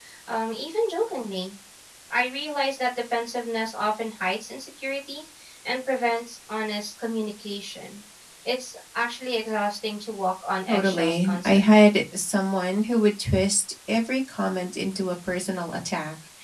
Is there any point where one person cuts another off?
Yes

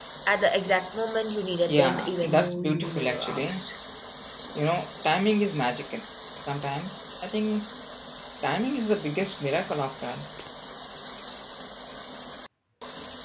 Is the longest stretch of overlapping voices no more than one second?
No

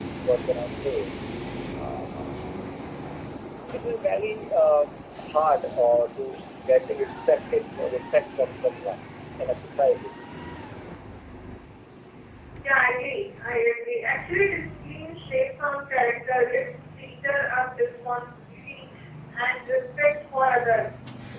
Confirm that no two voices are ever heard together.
Yes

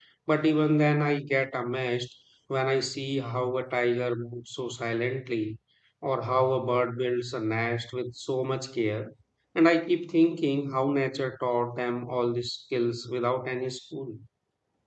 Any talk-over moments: No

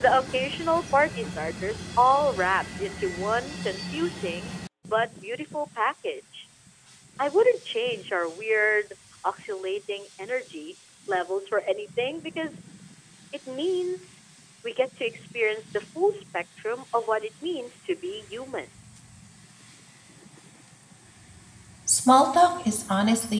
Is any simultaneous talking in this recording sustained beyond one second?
No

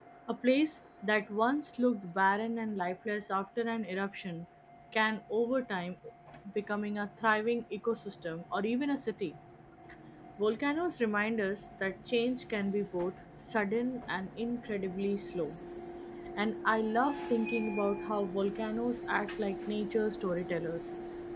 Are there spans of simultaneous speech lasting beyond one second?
No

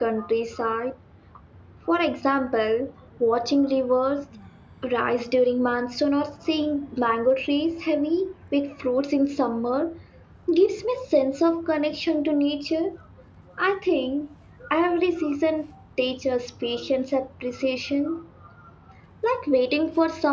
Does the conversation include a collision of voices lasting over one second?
No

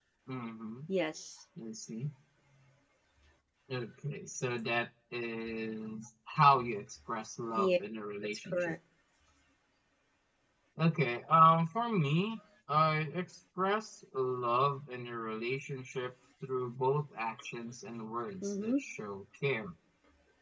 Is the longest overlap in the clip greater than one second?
No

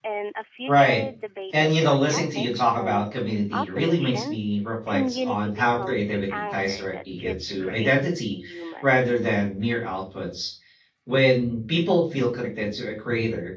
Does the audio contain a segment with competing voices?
Yes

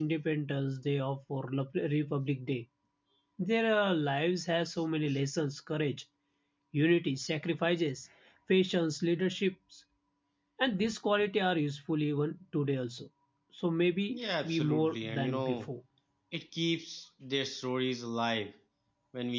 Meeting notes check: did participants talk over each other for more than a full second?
Yes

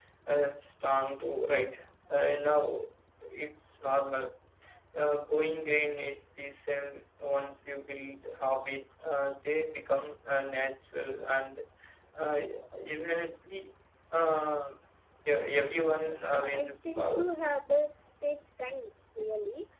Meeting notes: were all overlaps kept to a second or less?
No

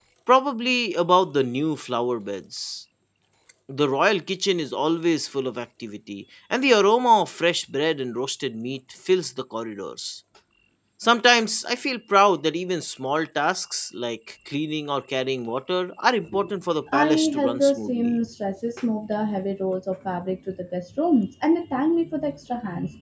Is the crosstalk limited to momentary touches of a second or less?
No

